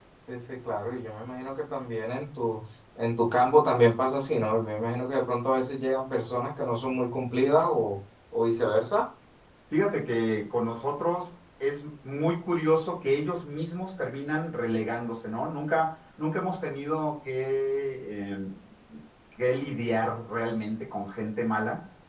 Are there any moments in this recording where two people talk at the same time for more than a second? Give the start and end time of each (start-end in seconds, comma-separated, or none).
none